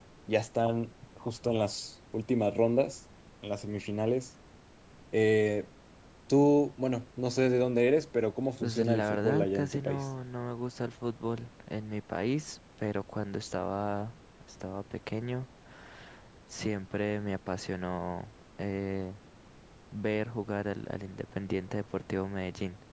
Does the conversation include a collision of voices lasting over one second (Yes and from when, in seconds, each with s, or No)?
Yes, from 8.6 s